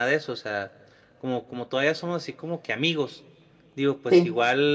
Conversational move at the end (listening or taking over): listening